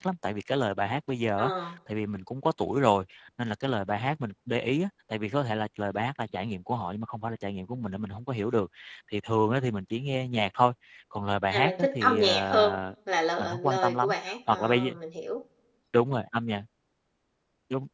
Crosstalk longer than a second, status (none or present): present